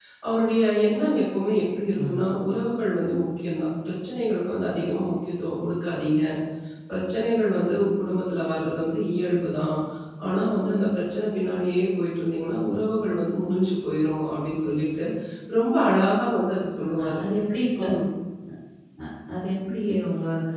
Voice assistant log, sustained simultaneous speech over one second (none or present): none